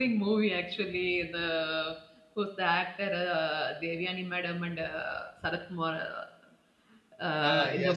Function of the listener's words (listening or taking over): taking over